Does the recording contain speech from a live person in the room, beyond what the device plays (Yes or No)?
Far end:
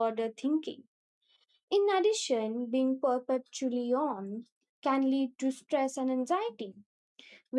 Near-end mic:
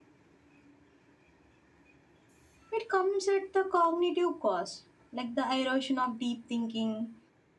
Yes